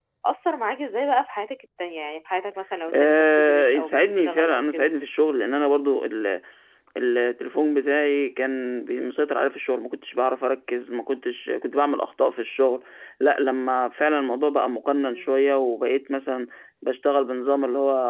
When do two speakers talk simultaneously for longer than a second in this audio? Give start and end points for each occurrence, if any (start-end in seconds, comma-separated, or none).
2.9-4.9